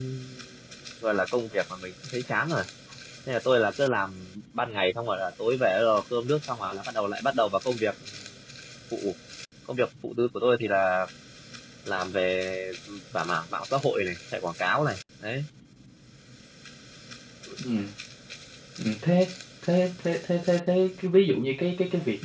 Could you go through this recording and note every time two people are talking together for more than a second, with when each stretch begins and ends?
none

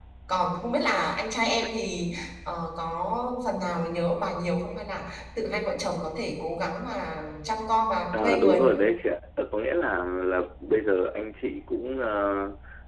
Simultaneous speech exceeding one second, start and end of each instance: none

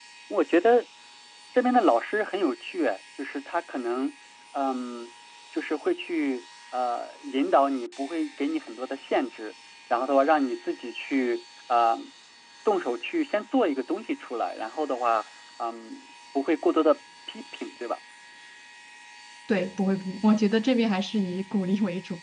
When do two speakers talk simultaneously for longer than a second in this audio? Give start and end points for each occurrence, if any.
none

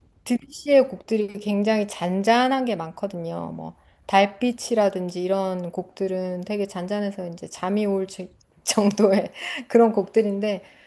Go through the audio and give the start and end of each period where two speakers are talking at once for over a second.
none

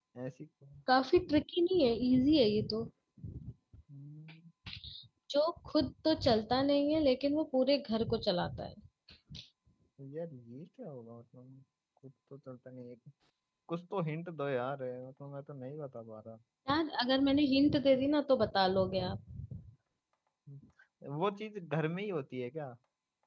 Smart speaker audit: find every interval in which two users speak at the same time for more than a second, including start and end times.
none

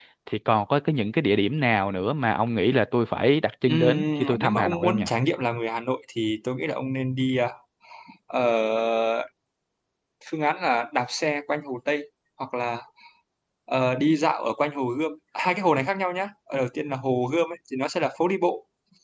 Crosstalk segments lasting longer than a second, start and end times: 3.7-5.0

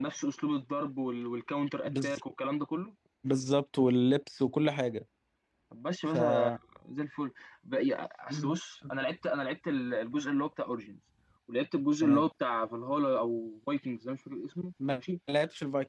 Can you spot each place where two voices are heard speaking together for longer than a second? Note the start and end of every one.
none

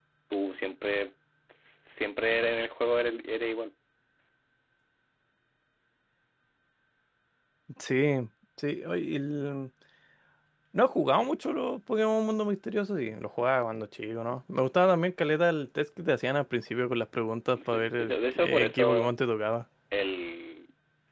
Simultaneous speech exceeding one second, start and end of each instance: 17.7-19.1

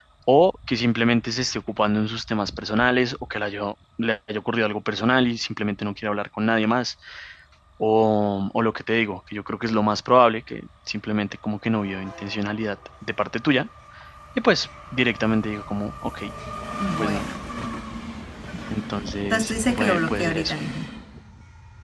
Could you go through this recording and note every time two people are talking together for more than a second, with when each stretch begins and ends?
19.3-20.5

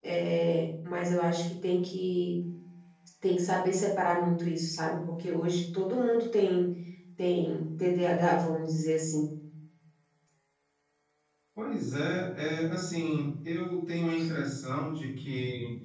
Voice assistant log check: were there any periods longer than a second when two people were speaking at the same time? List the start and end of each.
none

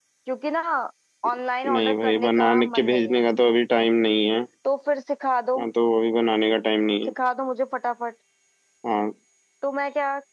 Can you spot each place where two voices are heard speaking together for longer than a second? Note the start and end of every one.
1.7-3.2

